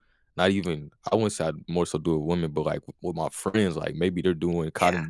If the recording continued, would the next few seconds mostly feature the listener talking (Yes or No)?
No